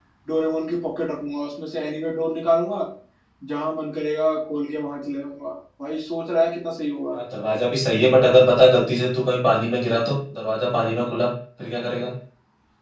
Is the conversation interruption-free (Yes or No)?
Yes